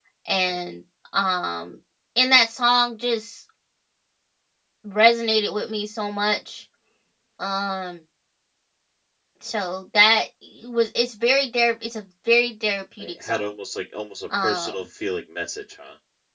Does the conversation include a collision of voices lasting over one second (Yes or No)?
No